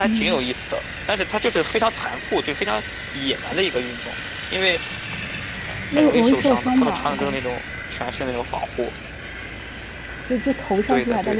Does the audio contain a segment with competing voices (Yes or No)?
Yes